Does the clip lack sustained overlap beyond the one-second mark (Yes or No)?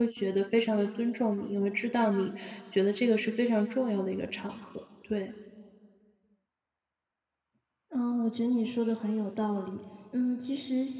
Yes